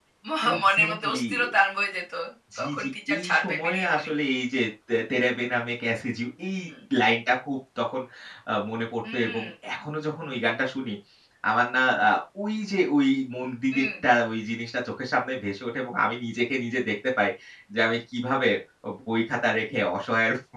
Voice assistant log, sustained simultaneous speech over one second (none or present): present